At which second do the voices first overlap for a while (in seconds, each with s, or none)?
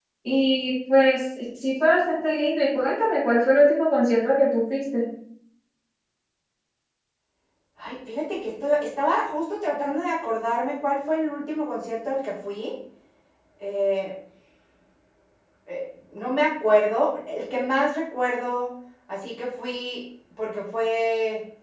none